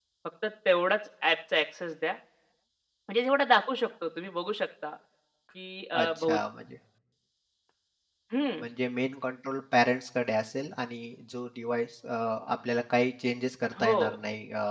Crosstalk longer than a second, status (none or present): none